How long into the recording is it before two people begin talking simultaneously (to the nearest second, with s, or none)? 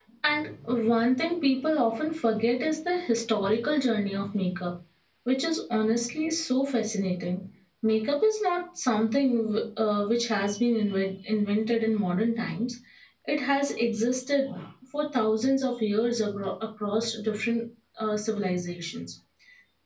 none